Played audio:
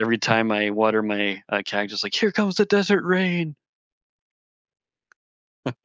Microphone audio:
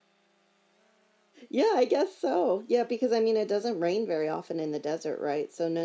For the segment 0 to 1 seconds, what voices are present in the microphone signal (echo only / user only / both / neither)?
neither